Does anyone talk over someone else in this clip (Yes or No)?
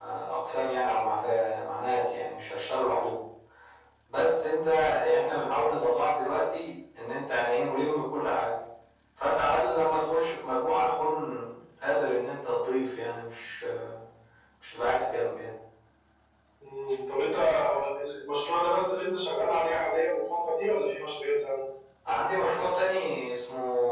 No